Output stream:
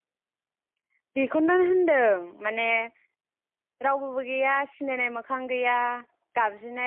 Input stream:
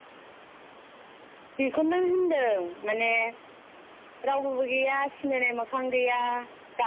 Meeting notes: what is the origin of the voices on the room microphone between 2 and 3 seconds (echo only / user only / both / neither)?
echo only